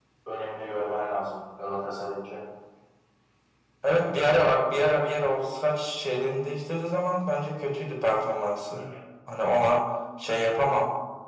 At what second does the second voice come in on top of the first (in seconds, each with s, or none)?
none